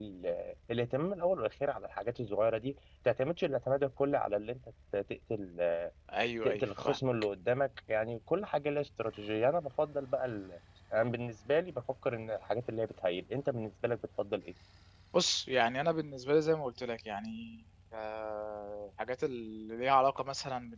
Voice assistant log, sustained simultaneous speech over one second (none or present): none